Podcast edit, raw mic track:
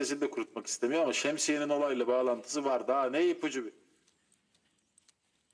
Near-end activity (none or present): none